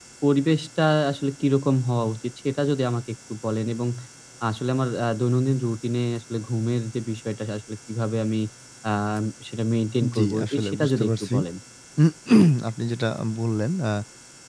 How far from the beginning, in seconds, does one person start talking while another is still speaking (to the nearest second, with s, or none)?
10 s